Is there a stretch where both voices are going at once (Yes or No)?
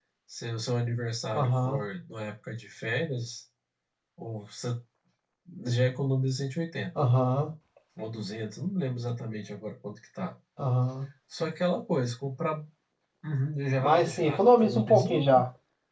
Yes